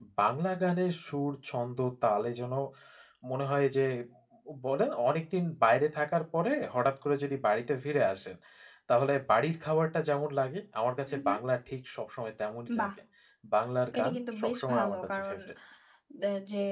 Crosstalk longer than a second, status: present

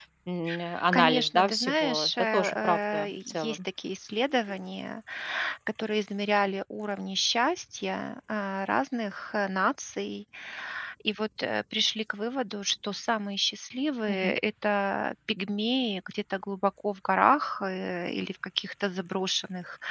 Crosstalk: present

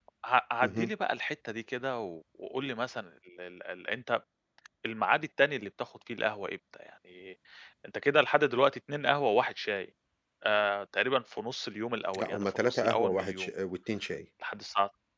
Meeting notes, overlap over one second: present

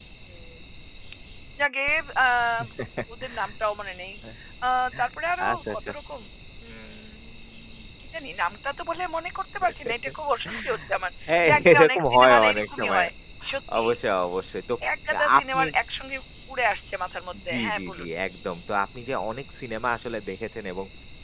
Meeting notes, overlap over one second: present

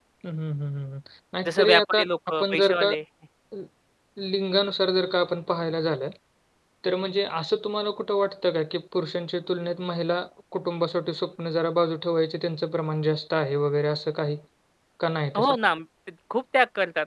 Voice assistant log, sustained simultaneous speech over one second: present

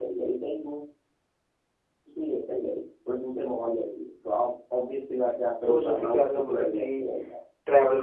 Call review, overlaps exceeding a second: present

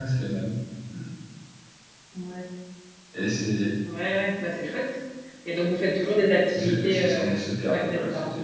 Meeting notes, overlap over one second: present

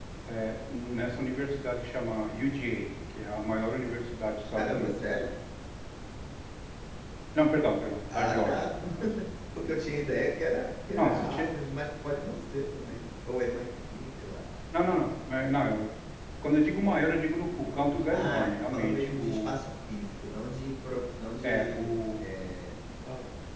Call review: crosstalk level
present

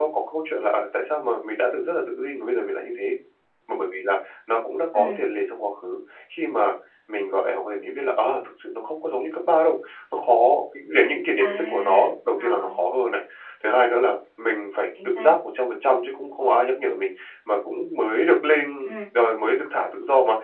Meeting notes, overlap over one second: present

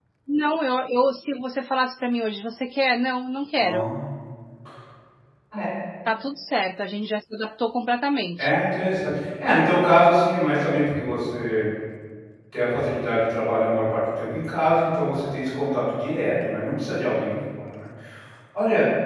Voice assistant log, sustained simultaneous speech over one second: none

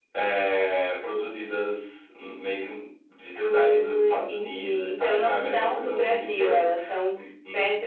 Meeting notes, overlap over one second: present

